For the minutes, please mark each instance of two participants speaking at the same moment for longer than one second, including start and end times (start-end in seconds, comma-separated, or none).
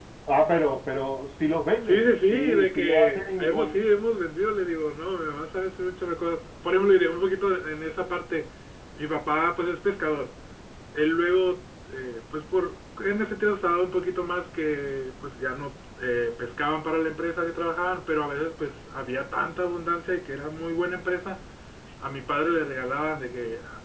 1.8-3.7